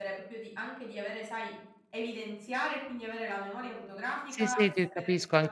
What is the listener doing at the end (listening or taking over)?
taking over